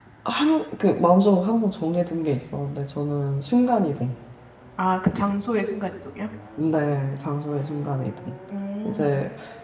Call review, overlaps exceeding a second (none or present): none